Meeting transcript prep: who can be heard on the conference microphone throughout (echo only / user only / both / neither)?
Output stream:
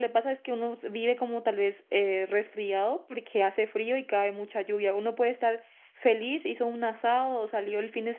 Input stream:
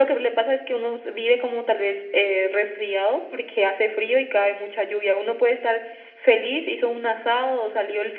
echo only